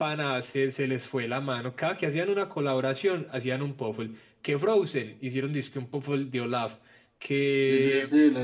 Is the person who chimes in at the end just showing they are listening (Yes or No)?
No